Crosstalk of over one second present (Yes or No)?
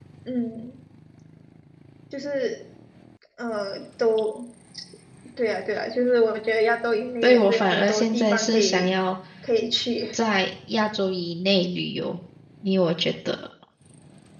Yes